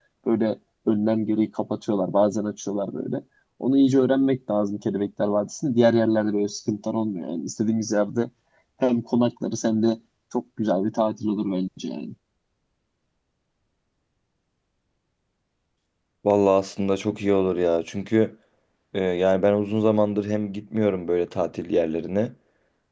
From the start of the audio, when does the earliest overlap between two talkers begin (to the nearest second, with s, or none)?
none